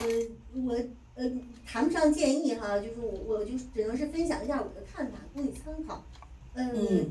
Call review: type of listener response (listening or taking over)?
listening